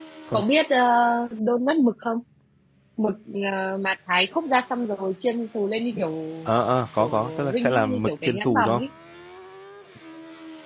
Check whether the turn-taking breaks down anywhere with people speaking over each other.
Yes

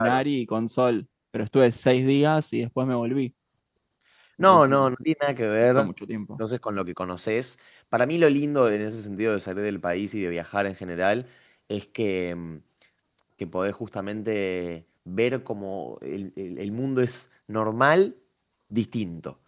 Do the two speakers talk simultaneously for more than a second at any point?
No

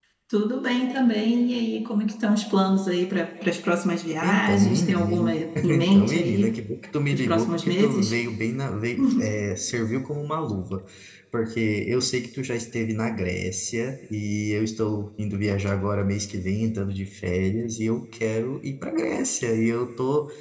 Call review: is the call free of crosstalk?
No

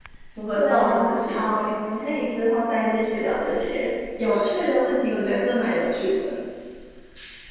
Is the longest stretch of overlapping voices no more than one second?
No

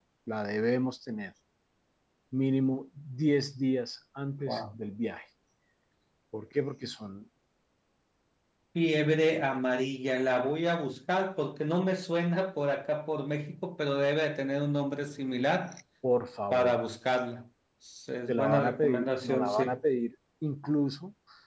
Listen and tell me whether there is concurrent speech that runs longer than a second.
Yes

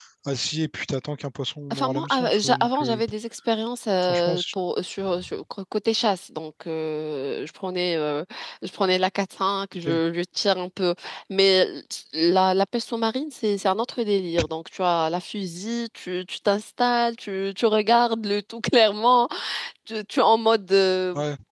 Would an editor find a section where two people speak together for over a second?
Yes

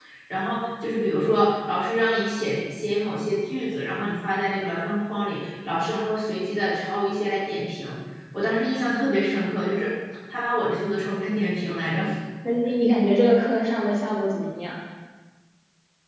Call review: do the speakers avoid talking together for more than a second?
Yes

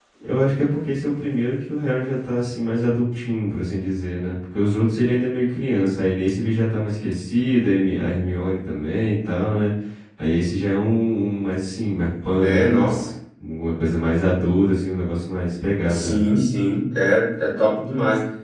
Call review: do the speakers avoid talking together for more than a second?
Yes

